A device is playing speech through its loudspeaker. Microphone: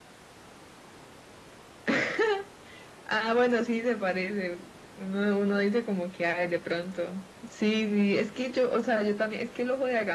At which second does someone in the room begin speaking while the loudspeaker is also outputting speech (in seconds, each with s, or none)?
none